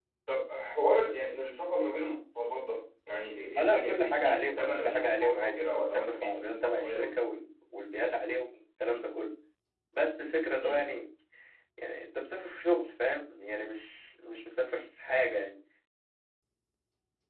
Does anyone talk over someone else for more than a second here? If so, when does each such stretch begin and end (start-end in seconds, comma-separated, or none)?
3.6-7.2